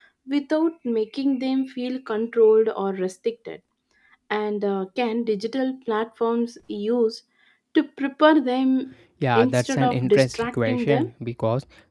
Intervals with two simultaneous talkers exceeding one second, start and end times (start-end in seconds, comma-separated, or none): 9.4-11.1